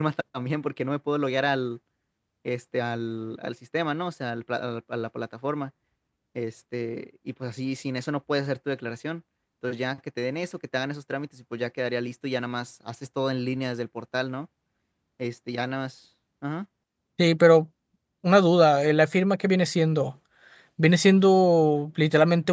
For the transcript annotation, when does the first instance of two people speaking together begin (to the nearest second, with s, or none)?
none